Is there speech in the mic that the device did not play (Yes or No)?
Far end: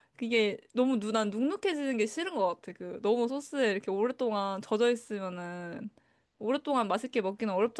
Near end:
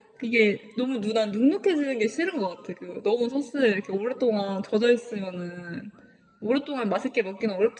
No